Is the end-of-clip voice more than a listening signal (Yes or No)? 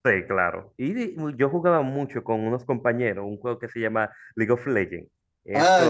Yes